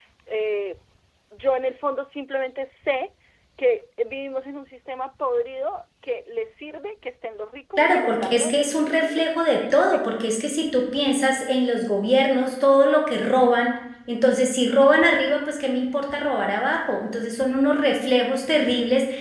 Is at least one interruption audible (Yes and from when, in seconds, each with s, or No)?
Yes, from 7.8 s